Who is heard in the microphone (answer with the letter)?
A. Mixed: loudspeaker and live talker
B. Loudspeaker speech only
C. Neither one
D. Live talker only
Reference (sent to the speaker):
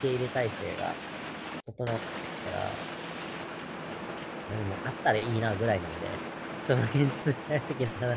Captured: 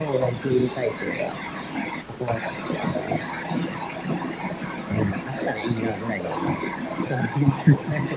B